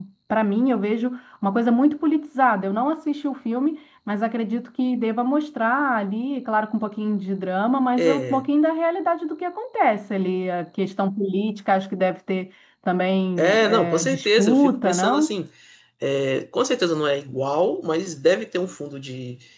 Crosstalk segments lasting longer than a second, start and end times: 13.4-15.3

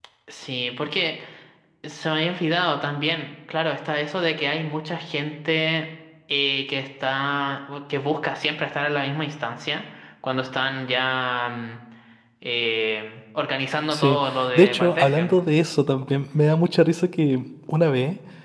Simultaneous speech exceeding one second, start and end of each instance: 13.9-15.3

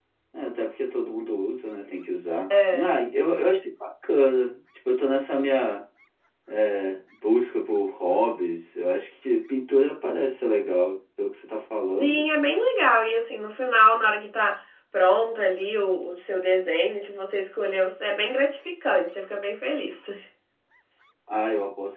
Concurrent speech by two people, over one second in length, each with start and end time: none

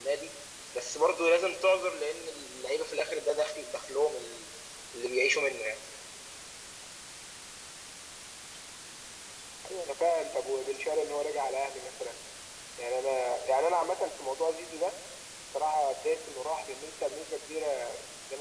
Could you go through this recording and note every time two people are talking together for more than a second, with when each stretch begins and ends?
none

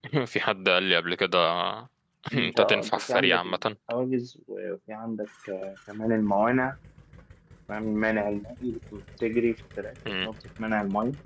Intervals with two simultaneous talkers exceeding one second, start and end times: 2.4-3.5

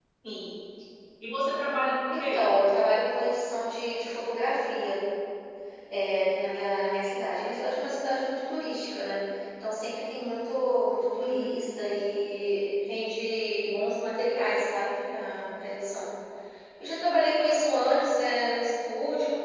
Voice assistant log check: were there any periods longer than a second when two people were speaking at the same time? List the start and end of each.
none

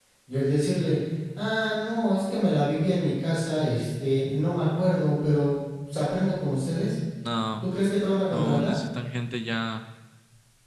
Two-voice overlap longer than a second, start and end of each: none

